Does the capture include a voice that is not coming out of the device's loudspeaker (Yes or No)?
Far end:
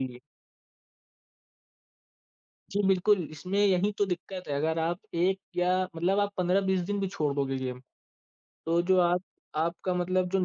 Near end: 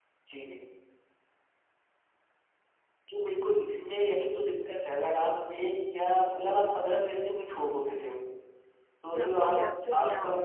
Yes